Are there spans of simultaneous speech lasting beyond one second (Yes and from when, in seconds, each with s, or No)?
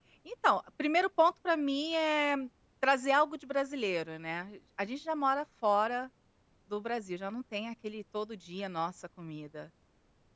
No